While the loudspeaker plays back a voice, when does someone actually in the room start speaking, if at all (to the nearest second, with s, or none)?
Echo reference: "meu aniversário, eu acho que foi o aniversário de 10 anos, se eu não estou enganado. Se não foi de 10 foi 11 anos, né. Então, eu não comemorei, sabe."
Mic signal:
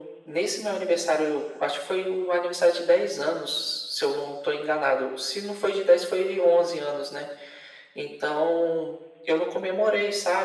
none